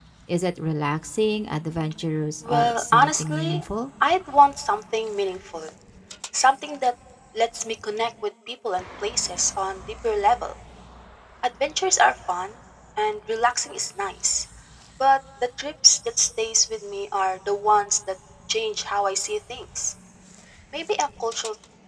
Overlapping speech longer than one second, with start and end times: 2.4-3.6

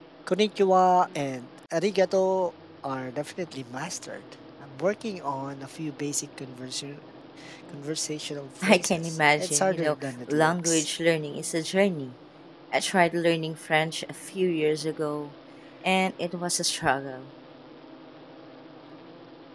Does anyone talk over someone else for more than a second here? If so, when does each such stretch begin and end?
8.6-10.9

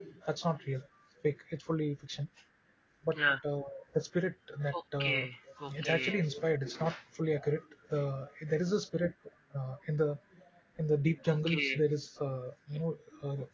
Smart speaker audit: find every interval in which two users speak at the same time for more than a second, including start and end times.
none

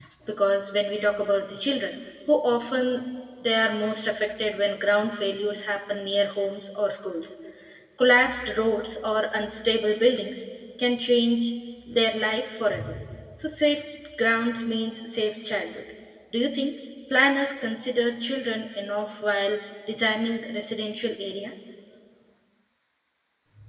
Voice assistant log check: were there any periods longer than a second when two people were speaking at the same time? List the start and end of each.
none

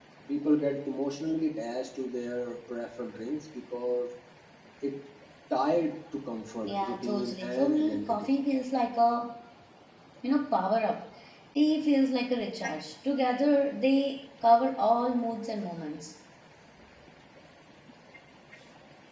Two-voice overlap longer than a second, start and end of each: 6.6-8.3

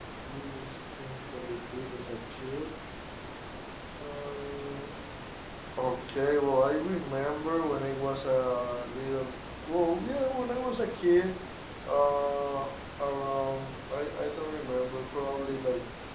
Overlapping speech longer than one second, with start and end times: none

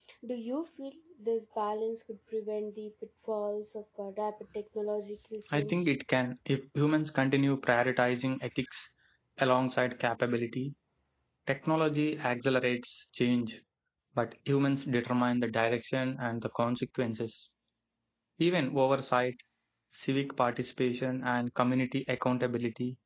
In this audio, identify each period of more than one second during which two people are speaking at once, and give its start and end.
none

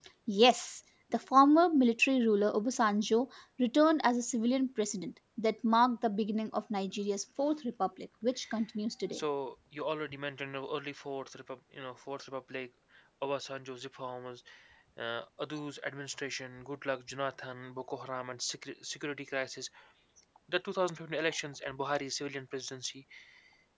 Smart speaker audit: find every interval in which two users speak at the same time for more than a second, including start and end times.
none

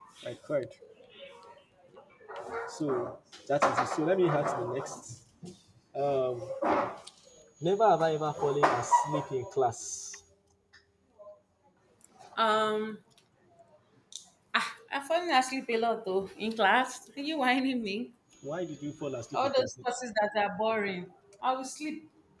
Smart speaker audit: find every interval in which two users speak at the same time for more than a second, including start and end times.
none

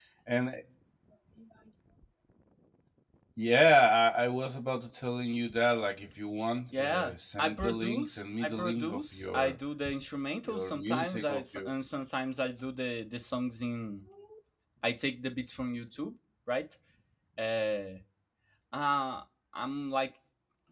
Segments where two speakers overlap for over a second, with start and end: 6.8-9.6, 10.4-11.7

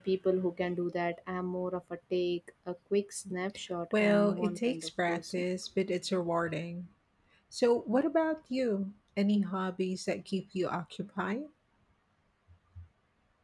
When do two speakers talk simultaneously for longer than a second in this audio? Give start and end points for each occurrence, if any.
4.0-5.4

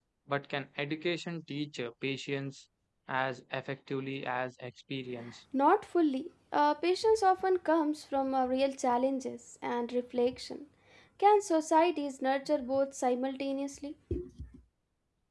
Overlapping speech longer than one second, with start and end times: none

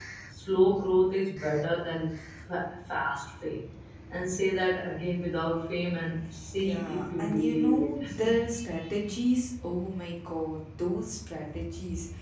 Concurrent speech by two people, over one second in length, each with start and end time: 6.6-8.3

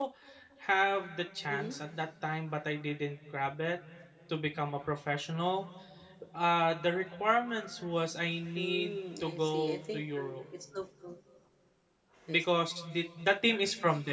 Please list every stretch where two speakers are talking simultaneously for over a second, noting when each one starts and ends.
8.6-10.4

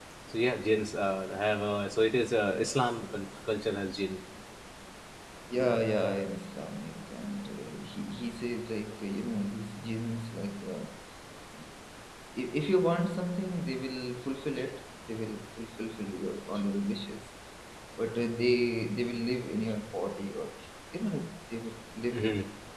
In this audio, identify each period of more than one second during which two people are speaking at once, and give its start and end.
none

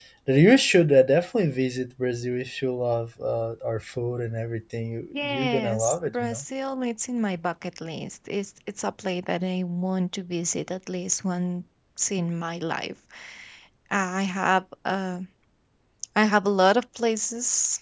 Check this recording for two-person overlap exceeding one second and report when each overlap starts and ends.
5.2-6.4

